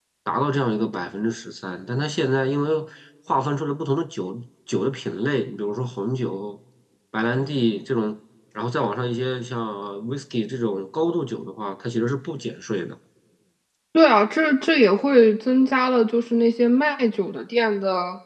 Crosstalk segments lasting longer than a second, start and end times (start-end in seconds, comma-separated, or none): none